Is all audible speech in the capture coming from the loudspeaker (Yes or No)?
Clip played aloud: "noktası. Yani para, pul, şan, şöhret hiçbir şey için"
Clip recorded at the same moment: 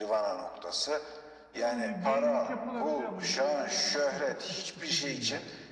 No